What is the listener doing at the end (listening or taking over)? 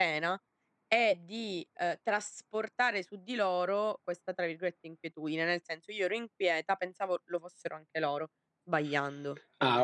taking over